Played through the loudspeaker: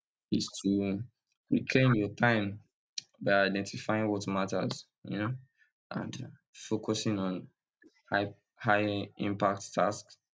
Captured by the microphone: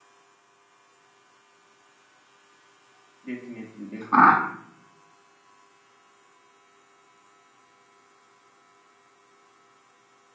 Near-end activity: present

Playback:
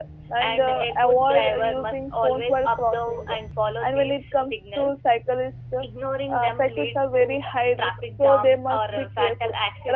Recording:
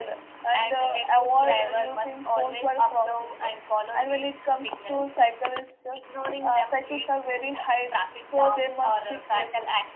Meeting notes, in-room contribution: none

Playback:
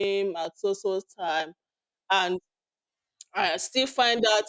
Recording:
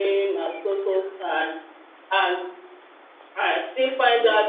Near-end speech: none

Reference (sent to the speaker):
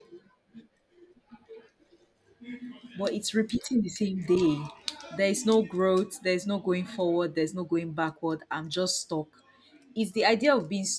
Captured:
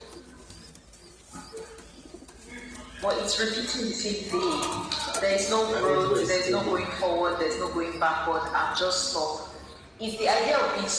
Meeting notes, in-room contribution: present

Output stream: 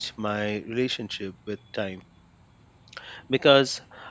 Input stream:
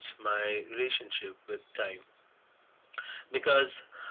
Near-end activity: none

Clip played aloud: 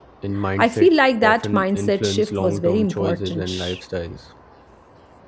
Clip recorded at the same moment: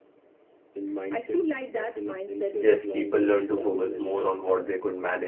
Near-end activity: present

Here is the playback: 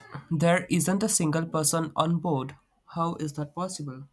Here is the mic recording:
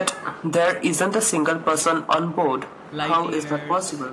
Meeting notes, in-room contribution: present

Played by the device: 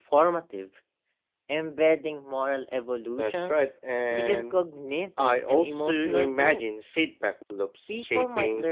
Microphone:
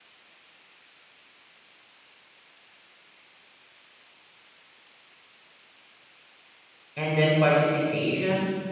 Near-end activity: present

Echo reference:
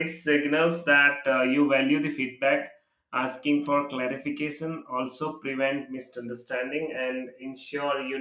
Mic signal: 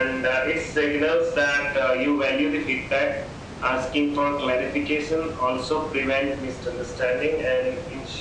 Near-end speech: none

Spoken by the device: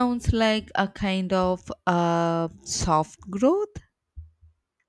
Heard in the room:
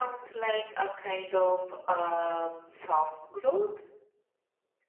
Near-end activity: none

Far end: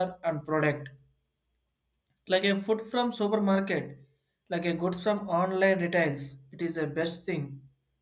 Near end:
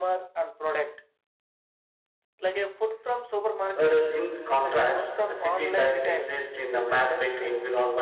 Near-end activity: present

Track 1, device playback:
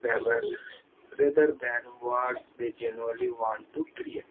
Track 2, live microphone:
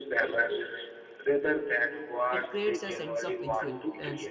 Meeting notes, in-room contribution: present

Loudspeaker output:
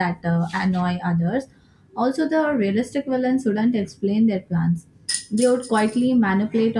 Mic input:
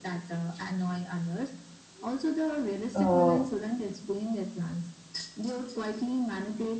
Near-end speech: present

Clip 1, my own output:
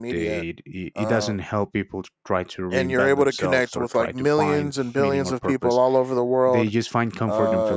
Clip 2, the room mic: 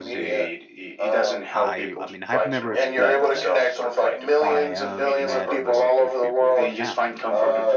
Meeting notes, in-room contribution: present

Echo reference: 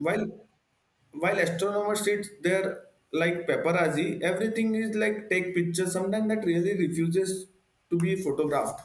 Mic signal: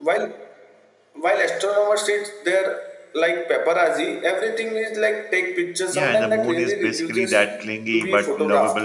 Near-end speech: present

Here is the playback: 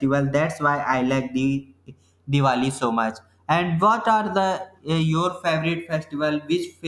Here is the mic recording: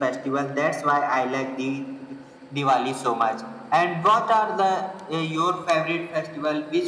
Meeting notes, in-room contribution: none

